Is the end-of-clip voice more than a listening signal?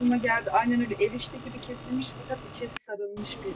Yes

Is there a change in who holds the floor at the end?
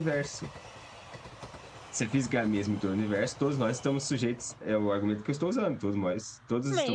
Yes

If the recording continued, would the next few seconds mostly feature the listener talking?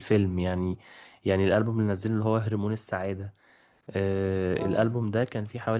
No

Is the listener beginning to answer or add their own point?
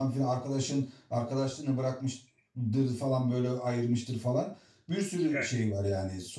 No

